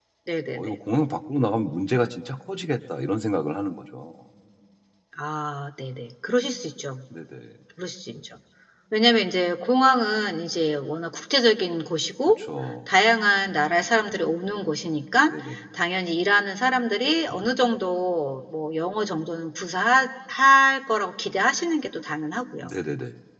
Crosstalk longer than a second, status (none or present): none